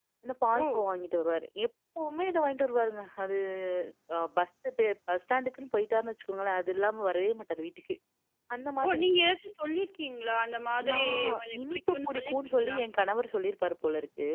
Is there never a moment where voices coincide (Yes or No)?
No